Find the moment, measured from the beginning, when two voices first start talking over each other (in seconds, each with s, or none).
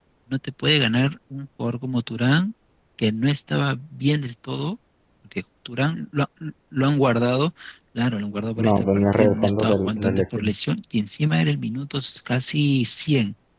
8.6 s